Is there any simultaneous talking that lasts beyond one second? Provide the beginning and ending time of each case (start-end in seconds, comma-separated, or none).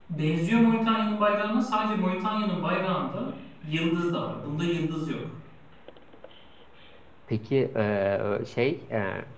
none